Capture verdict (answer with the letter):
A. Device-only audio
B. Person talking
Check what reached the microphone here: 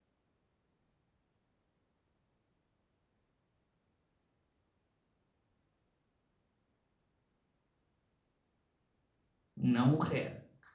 B